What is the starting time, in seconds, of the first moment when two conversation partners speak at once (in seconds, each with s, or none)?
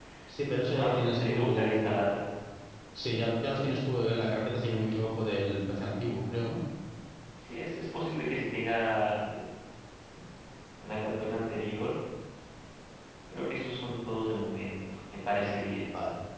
0.6 s